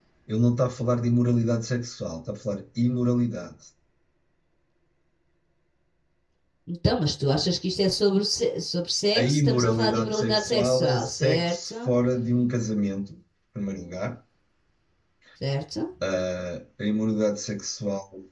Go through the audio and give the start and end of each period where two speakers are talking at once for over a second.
9.1-11.7

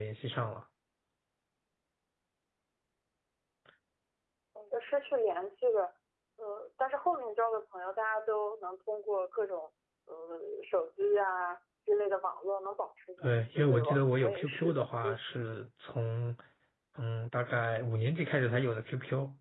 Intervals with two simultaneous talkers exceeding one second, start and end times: 13.2-15.2

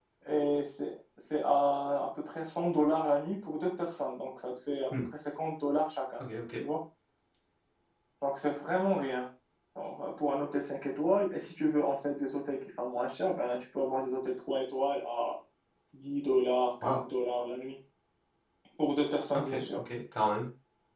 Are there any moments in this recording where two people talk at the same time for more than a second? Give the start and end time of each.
none

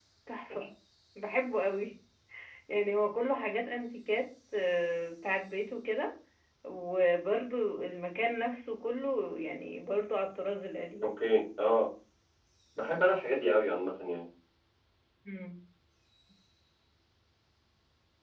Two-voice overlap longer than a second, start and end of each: none

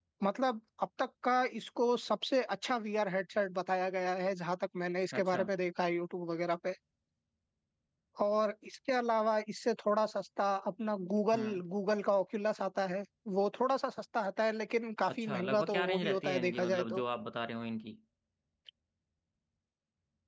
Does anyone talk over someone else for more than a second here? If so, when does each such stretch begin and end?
15.1-17.0

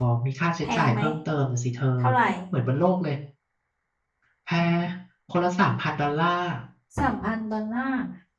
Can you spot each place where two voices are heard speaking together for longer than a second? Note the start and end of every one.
none

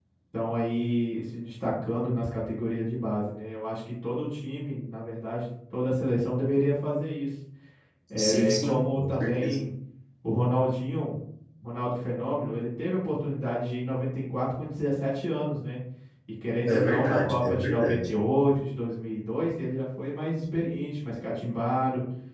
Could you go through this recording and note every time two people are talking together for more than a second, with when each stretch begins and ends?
8.2-9.6, 16.6-18.1

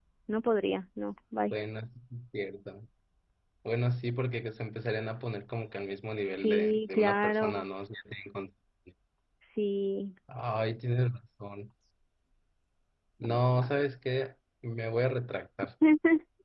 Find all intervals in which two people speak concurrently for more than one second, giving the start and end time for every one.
6.4-7.6

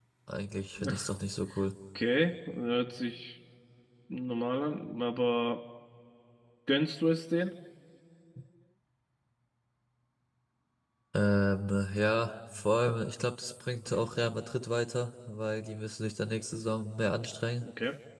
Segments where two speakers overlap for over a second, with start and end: none

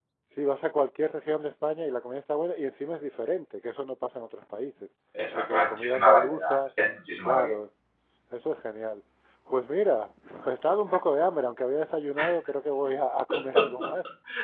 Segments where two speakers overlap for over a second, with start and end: 5.3-6.6

